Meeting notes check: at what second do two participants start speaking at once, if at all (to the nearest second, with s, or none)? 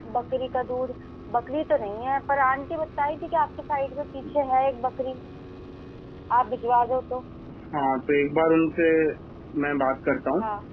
none